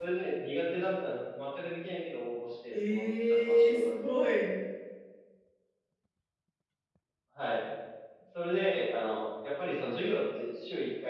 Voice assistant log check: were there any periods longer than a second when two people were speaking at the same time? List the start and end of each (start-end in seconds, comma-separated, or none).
2.7-4.0